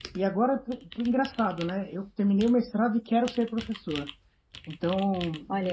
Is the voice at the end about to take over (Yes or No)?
No